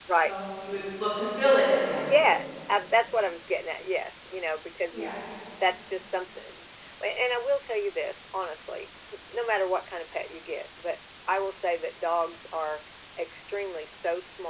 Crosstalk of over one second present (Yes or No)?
No